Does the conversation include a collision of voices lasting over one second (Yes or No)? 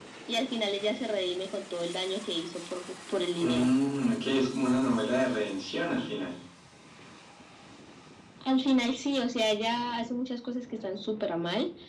No